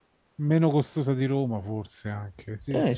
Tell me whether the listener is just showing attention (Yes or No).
No